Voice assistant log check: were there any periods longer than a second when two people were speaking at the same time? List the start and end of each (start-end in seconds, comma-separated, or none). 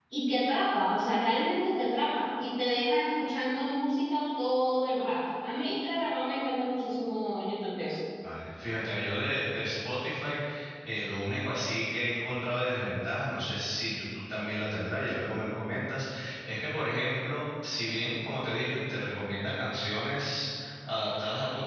none